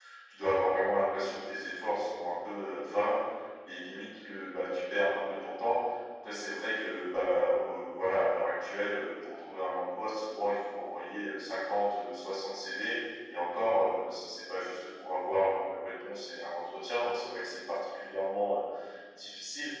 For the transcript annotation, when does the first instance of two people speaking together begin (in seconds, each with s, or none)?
none